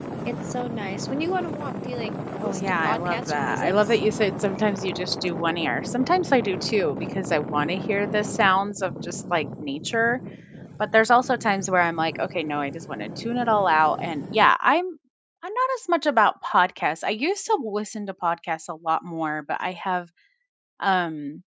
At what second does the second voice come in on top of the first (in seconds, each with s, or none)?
2.4 s